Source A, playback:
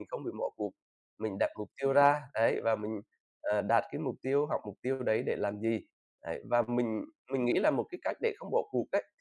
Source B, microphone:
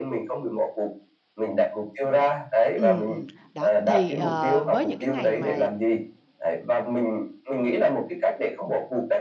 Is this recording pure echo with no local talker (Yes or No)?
No